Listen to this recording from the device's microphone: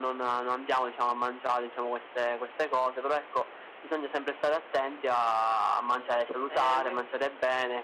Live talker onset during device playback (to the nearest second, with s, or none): 6 s